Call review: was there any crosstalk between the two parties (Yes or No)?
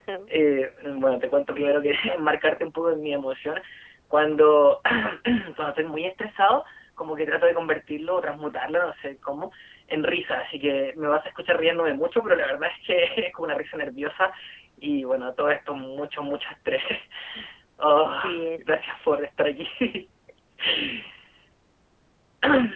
Yes